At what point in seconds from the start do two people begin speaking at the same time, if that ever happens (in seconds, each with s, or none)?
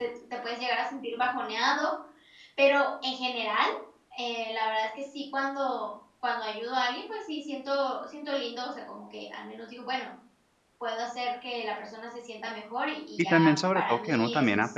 13.2 s